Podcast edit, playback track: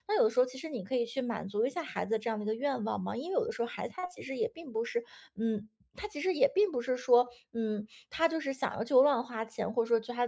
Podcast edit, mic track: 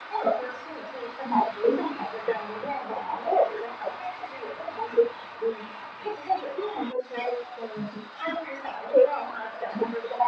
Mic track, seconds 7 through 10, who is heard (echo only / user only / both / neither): echo only